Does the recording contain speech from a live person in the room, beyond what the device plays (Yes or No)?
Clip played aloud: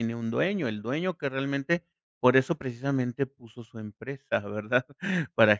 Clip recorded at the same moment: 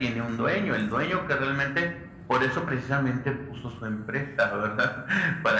No